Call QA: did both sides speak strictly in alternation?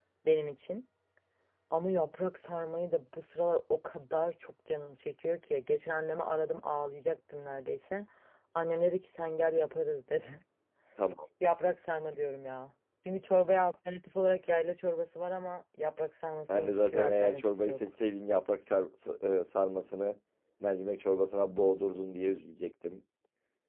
No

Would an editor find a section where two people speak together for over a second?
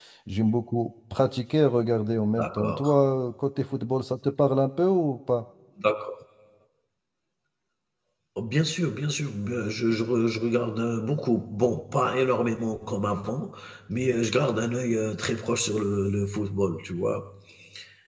No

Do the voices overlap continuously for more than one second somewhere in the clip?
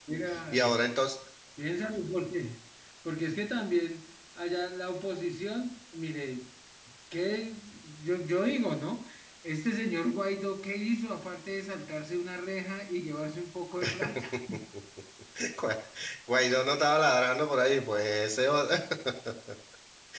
No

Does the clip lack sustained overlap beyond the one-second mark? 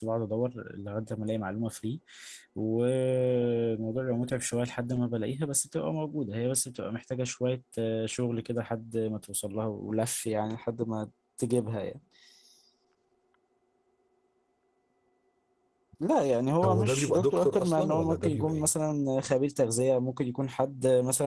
No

